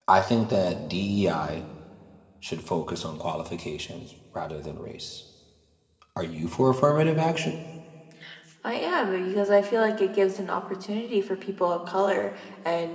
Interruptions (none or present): none